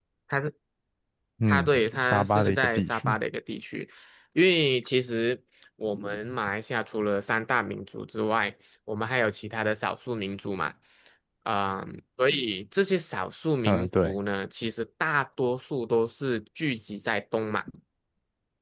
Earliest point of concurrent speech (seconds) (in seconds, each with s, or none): 1.5 s